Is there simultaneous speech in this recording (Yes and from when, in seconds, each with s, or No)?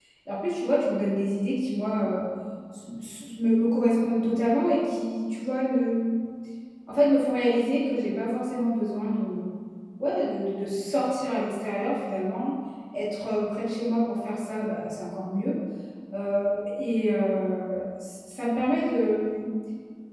No